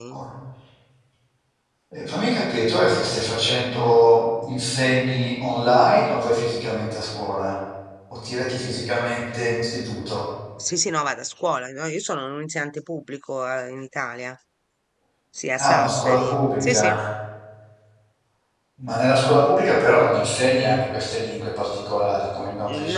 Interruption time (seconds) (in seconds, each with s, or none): 15.6 s